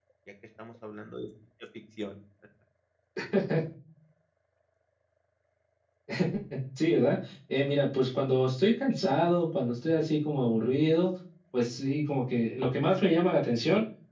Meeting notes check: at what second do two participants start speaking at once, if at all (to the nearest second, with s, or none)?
none